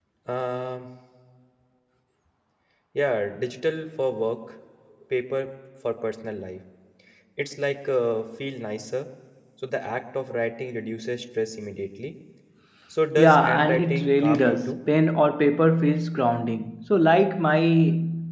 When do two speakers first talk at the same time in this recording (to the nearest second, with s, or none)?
13 s